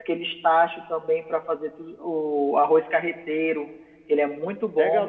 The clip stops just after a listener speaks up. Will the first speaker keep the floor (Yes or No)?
No